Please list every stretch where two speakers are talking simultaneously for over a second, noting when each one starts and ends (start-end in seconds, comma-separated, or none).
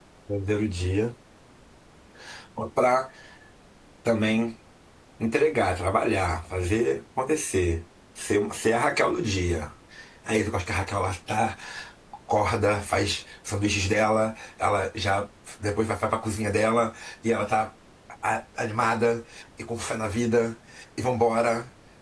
none